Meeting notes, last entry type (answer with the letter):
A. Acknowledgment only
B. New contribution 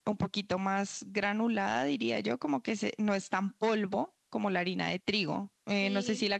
A